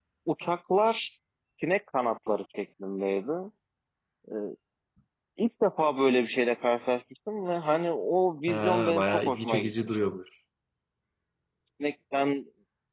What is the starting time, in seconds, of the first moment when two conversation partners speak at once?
8.5 s

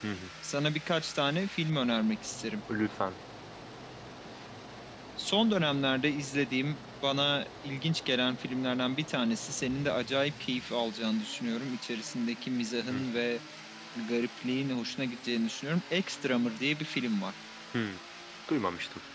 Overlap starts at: none

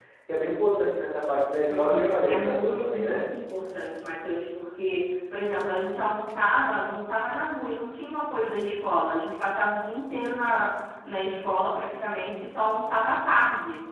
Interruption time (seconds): 1.7 s

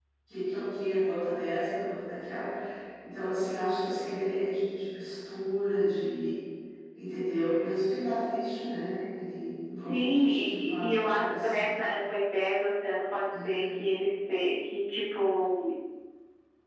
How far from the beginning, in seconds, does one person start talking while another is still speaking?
9.8 s

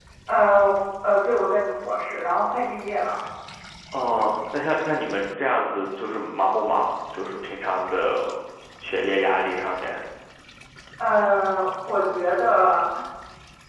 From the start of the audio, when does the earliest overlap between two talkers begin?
none

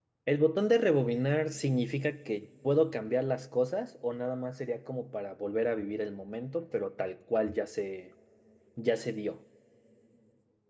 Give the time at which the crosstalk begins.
none

